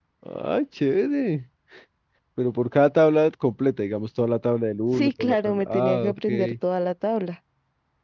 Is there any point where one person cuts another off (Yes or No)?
Yes